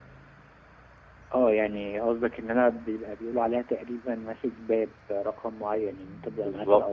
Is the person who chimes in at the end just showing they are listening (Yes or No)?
Yes